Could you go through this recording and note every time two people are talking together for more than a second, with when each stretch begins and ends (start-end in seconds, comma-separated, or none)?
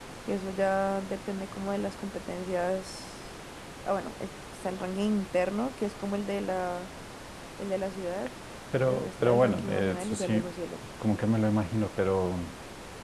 8.8-10.5